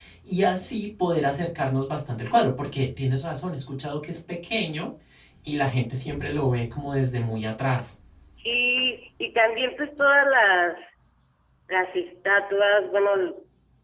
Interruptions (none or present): none